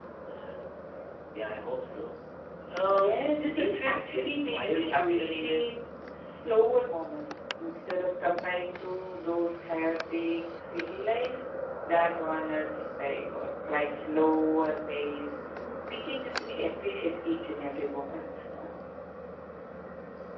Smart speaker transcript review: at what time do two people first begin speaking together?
2.9 s

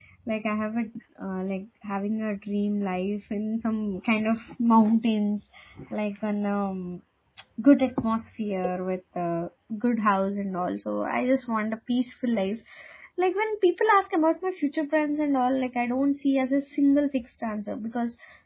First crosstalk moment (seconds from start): none

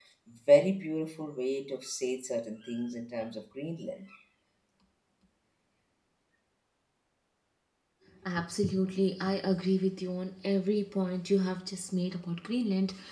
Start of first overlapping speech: none

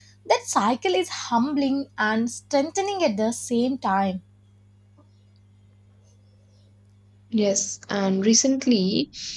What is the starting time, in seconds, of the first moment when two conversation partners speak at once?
none

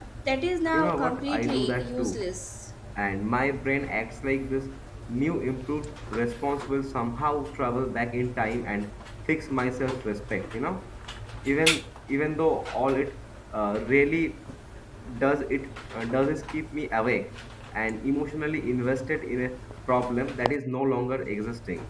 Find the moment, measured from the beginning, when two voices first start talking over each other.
0.7 s

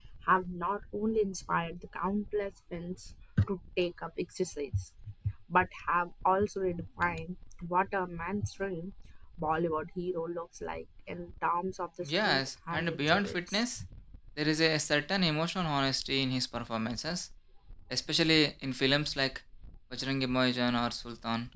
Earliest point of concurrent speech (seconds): 12.0 s

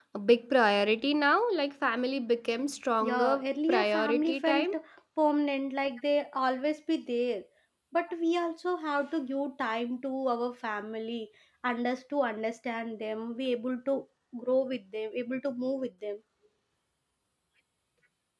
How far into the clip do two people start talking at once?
3.0 s

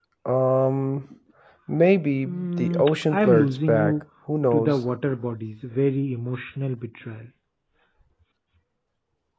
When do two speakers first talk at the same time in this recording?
2.2 s

